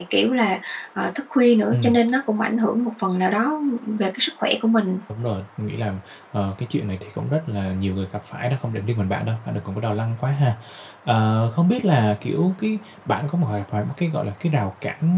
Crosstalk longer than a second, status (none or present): none